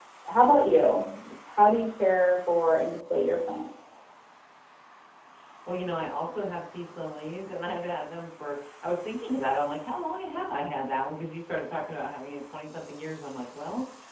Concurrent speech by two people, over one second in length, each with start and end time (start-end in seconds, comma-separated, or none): none